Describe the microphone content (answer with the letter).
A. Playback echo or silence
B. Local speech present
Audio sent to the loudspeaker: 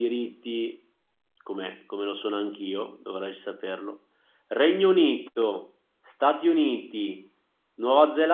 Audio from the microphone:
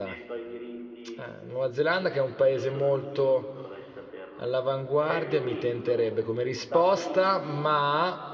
B